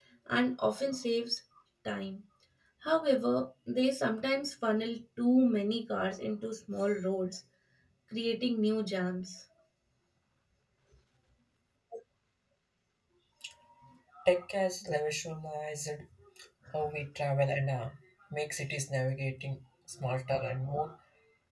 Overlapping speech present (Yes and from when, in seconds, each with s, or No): No